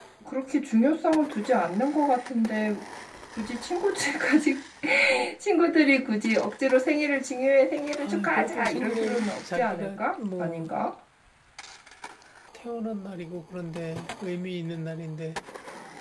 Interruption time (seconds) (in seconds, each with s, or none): 8.0 s